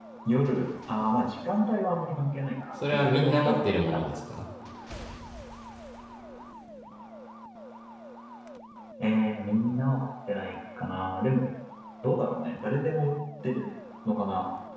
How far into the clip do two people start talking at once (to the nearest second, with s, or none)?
3 s